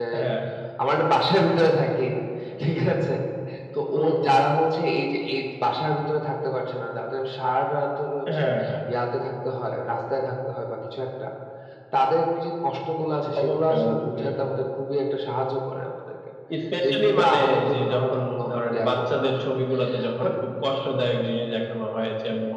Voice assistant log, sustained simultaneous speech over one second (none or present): present